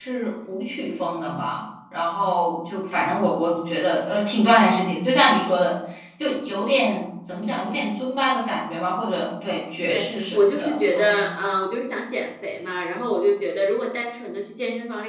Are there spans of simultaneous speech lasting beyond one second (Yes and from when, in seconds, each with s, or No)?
Yes, from 9.9 s